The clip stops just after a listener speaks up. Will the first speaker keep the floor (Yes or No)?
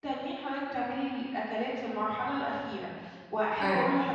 Yes